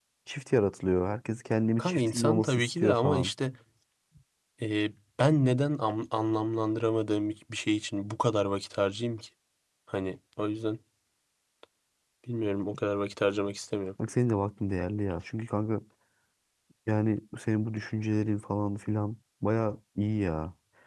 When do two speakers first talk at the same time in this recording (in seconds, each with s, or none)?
1.8 s